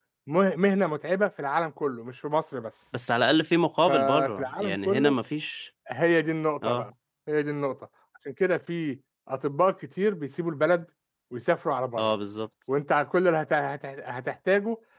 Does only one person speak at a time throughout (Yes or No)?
No